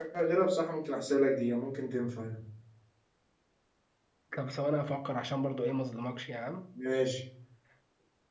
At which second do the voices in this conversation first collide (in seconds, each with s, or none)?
none